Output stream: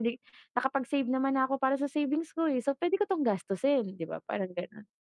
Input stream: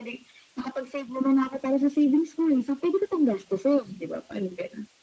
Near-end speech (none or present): none